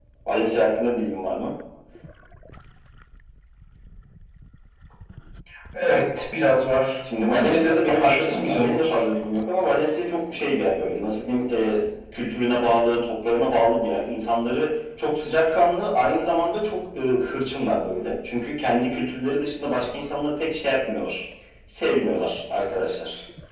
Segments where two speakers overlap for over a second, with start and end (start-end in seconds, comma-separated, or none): 7.2-9.0